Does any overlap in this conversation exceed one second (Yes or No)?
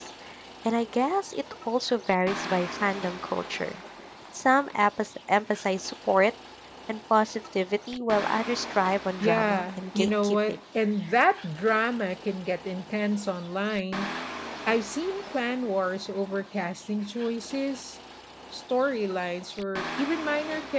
Yes